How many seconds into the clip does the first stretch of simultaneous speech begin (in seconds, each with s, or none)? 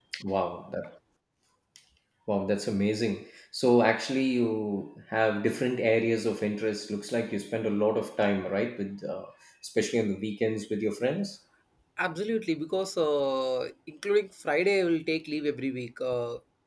none